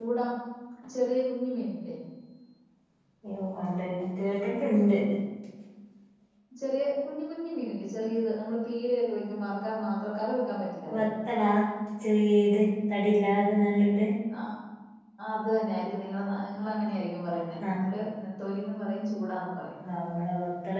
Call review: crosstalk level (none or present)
none